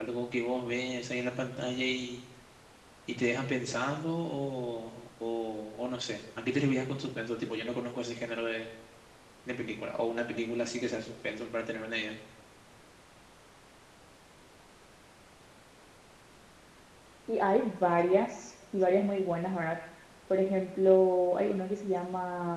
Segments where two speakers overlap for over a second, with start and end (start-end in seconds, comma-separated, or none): none